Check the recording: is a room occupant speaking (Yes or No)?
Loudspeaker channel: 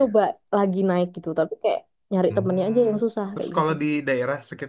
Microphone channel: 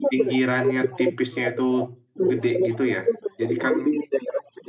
Yes